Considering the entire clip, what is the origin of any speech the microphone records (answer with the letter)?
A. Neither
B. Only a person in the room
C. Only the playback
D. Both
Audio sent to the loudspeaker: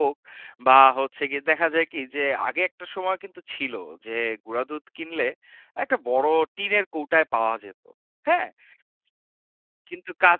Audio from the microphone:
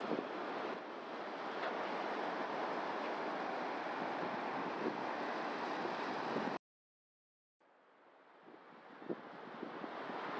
A